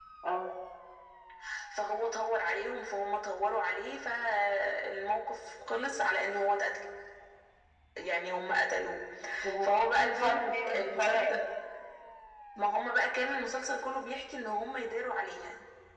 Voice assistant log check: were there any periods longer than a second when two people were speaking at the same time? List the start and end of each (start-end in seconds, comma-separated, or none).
9.6-11.4